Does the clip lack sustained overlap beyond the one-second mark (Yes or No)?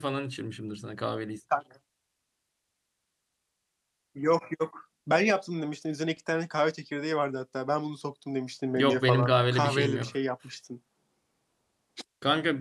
No